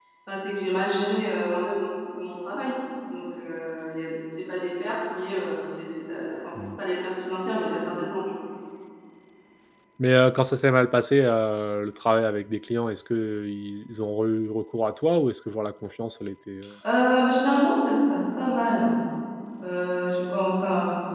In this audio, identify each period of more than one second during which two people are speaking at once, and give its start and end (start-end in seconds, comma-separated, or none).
none